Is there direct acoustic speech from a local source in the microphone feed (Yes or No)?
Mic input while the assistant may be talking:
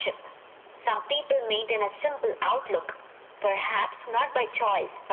No